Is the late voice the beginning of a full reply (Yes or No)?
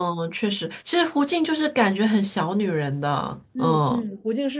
Yes